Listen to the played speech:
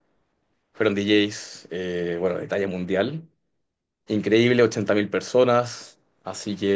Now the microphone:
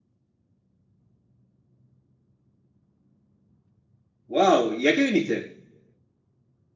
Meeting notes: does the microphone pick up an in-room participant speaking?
Yes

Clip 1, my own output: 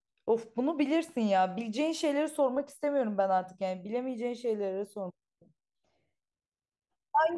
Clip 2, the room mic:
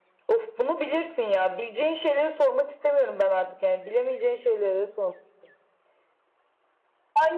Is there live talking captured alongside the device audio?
No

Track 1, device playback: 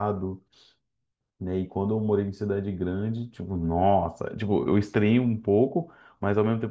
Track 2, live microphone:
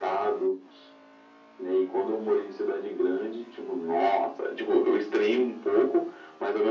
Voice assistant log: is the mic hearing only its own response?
Yes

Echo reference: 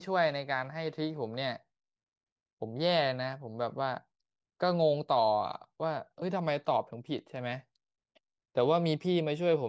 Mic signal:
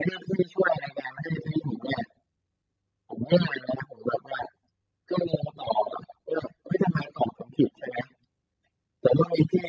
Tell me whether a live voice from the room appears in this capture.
No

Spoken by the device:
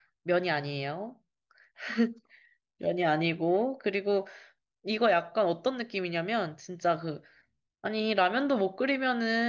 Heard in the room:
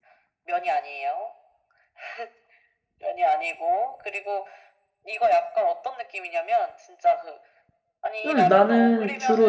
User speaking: Yes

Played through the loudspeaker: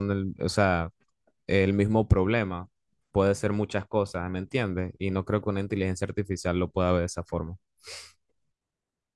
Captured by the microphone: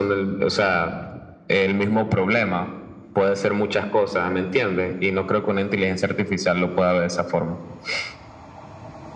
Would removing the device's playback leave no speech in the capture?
Yes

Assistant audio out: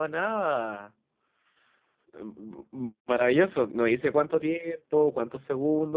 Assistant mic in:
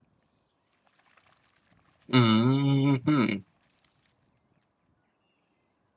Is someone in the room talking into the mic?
Yes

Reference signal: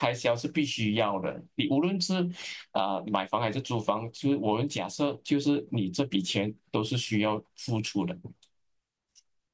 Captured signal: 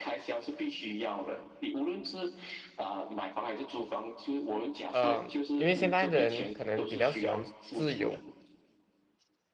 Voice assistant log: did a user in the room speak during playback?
Yes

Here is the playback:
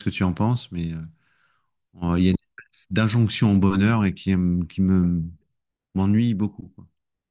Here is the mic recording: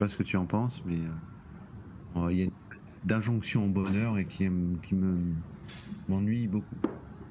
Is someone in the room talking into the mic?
No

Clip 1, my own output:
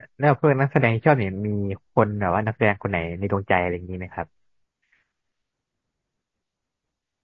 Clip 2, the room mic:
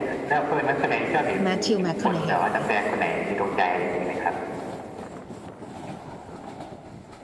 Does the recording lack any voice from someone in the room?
No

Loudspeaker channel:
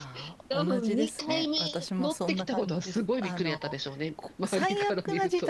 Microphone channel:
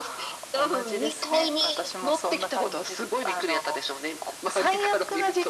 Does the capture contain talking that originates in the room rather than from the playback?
No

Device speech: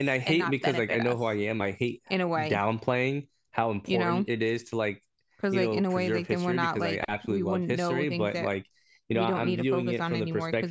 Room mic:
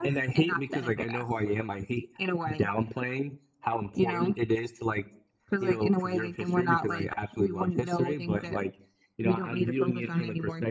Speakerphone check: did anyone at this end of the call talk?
No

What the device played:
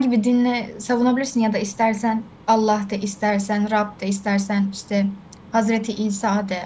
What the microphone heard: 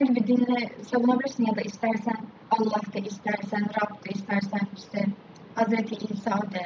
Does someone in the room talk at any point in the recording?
No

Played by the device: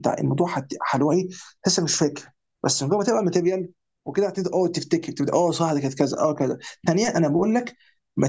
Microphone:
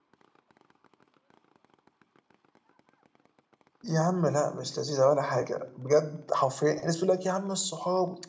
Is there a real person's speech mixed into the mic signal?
Yes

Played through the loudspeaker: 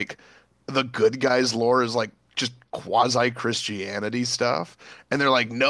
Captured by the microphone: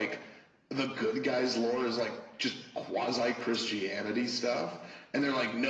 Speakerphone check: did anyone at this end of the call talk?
No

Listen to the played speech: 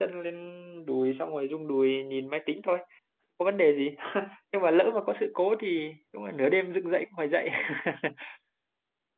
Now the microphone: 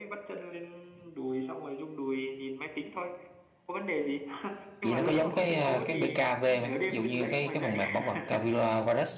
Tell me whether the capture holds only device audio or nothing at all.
No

